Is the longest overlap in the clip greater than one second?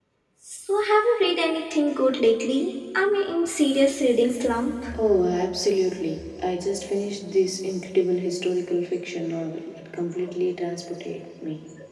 No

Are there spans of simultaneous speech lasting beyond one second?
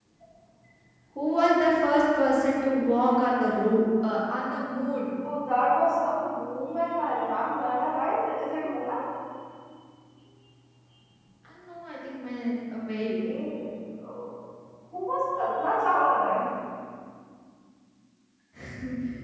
No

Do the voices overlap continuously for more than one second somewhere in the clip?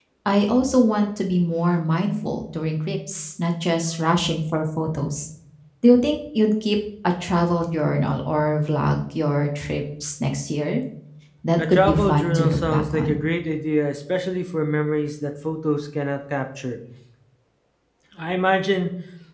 Yes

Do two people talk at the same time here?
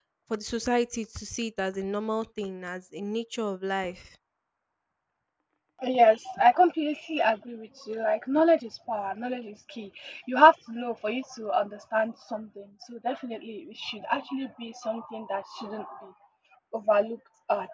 No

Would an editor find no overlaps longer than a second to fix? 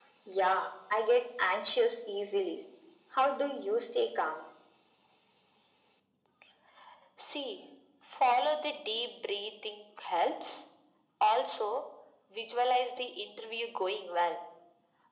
Yes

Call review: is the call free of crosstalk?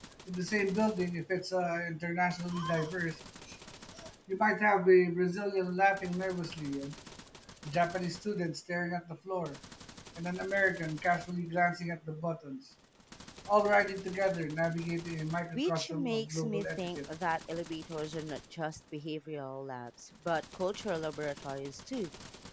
No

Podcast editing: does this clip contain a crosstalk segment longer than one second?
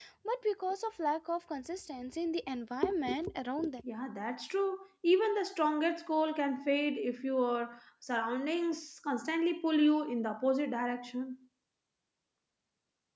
No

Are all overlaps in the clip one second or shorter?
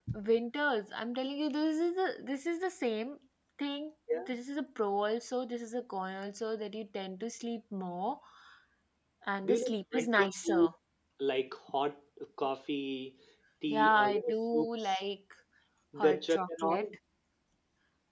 No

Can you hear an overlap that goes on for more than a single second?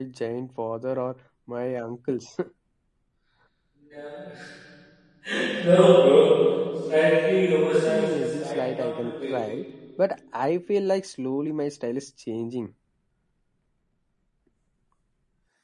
Yes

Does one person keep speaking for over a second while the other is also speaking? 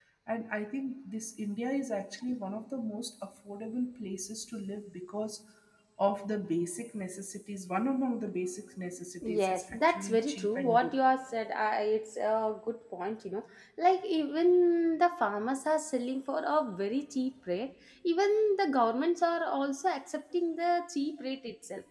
Yes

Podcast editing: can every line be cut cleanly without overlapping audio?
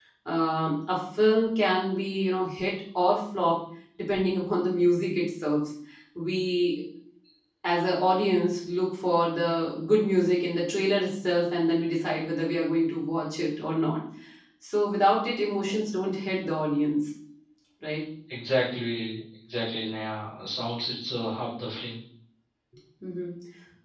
Yes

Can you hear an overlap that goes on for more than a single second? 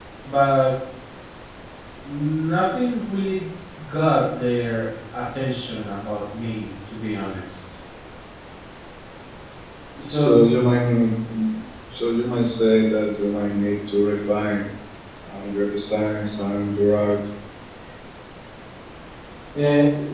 No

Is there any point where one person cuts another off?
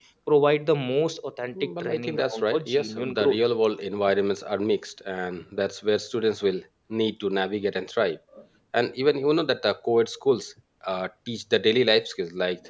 Yes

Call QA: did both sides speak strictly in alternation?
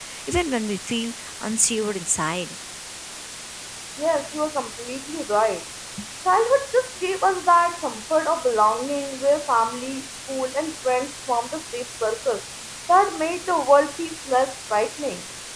Yes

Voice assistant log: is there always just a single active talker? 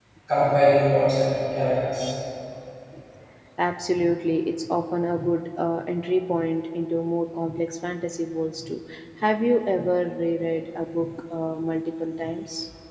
Yes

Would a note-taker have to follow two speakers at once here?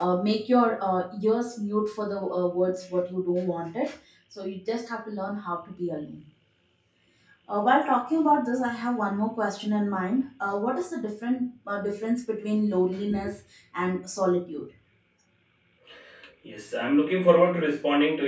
No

